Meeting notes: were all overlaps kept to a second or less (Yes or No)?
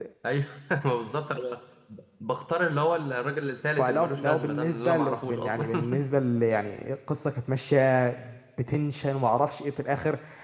No